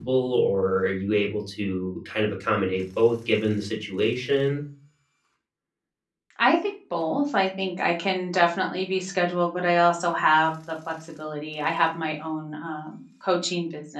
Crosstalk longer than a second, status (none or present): none